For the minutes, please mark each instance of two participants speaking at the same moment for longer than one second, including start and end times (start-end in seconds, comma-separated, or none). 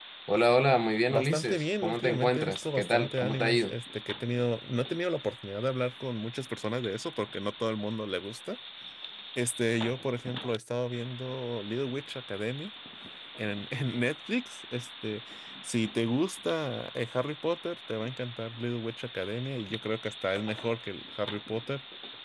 1.1-3.7